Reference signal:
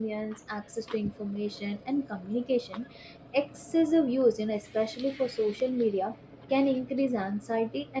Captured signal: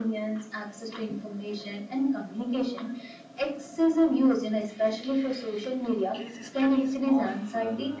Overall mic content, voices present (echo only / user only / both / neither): both